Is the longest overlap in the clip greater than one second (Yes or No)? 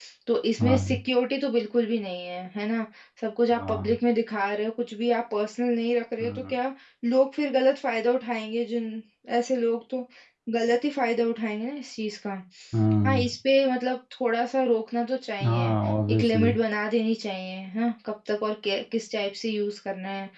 No